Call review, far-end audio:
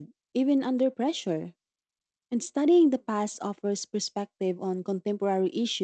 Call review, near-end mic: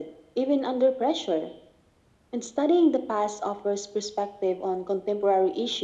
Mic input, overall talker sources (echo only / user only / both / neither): echo only